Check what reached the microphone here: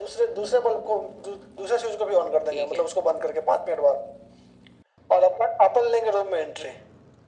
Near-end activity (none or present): present